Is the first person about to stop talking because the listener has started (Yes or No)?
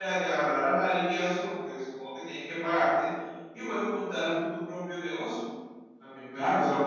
Yes